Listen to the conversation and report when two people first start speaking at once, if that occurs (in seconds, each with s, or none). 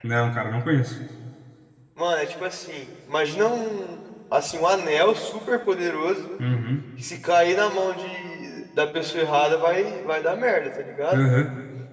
none